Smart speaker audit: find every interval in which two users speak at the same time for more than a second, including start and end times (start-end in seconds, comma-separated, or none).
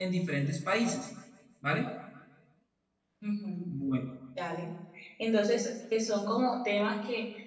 none